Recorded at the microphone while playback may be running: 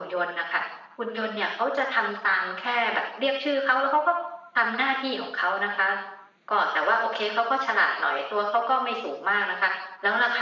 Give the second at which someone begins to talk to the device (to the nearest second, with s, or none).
none